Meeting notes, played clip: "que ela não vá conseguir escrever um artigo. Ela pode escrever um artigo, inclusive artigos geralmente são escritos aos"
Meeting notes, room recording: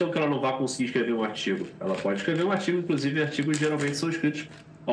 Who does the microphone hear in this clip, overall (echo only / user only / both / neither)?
echo only